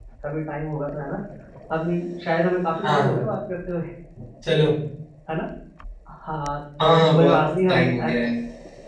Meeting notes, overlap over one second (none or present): present